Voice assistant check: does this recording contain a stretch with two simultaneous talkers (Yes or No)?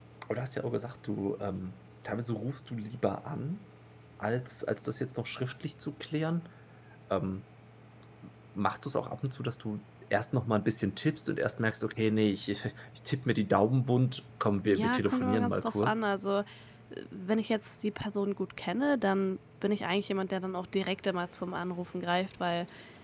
Yes